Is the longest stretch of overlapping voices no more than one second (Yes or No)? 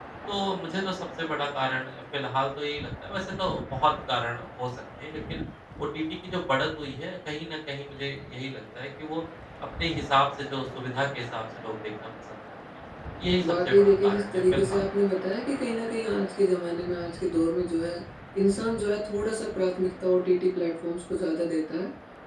No